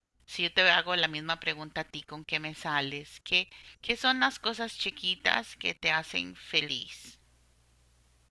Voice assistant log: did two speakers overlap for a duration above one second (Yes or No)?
No